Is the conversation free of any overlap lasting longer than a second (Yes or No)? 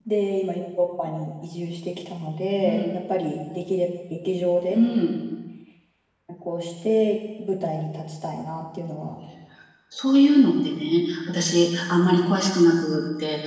Yes